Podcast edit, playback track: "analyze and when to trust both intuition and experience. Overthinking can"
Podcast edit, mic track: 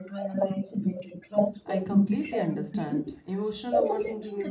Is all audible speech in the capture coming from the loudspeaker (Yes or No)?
No